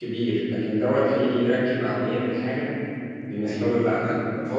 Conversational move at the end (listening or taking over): taking over